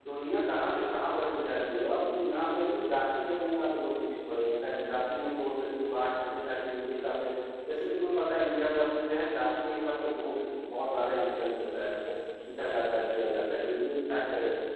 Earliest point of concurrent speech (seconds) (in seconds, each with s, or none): none